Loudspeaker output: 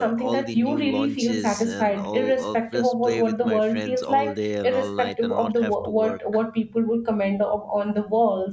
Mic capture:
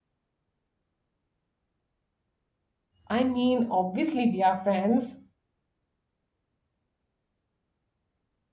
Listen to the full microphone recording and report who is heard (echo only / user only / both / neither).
user only